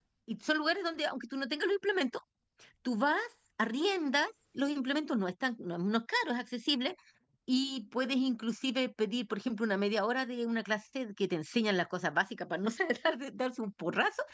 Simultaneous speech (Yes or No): No